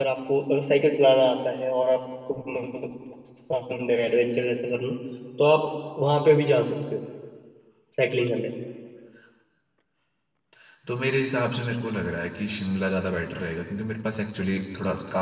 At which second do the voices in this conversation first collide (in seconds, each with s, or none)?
none